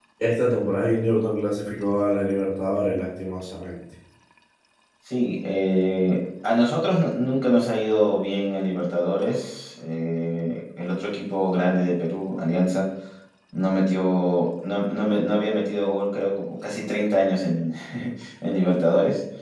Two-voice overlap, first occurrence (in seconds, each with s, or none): none